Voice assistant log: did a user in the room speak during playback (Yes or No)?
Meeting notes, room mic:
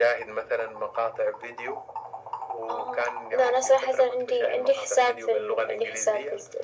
No